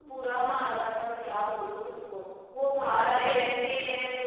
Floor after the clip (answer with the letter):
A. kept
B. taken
B